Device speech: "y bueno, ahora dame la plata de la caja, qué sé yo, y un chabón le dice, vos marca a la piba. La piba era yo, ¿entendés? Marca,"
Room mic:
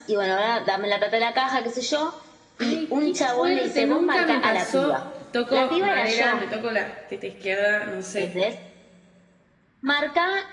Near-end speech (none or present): present